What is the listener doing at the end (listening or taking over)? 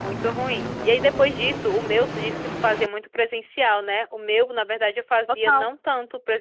listening